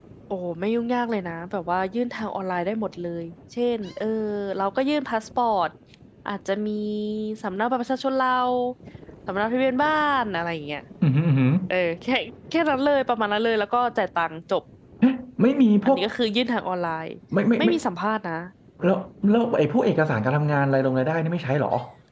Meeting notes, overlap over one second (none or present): none